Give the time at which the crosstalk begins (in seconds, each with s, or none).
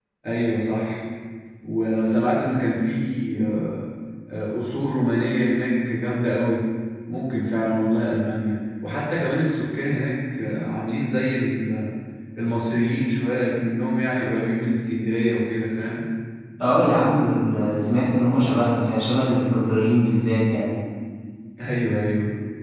none